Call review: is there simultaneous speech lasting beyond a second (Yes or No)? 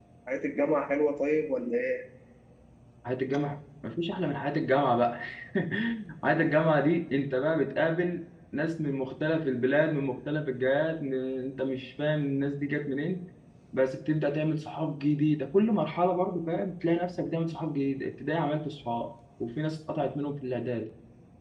No